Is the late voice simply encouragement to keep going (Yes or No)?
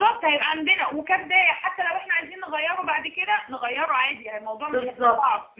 No